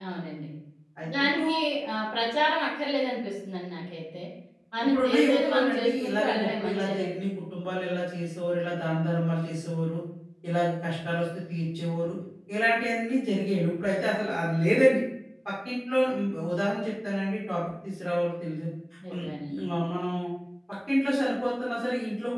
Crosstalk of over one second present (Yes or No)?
Yes